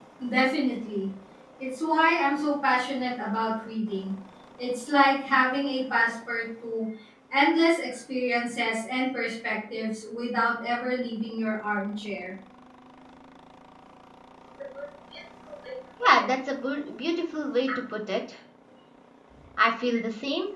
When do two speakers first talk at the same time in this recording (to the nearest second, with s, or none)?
none